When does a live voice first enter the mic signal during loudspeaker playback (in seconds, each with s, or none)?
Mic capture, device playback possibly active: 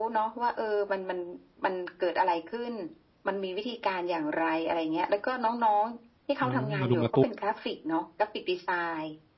6.4 s